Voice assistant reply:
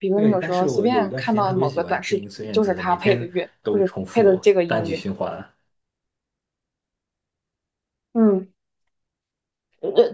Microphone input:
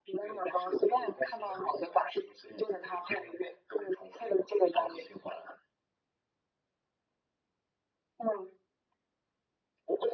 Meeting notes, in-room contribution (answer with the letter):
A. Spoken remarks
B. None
B